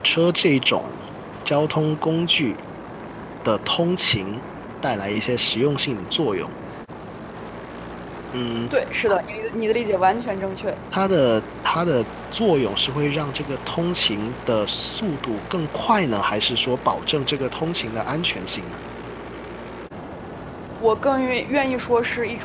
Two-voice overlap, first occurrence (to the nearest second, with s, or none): none